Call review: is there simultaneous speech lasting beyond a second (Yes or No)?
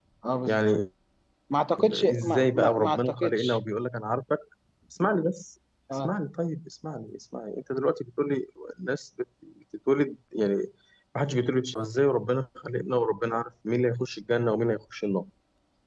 Yes